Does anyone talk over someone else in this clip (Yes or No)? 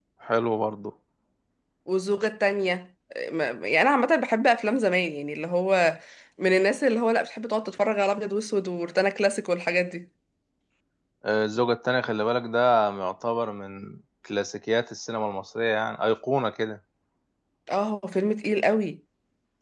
No